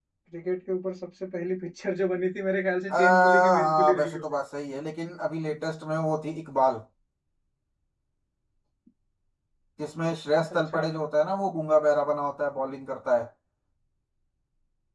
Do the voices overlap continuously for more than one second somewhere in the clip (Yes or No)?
Yes